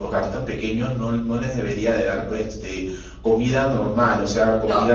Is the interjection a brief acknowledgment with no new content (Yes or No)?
Yes